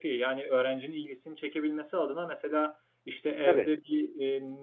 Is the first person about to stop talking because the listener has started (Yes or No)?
No